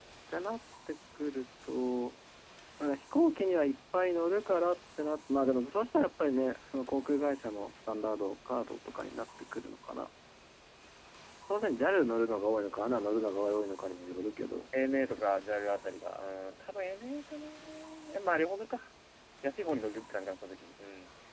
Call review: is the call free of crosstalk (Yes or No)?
Yes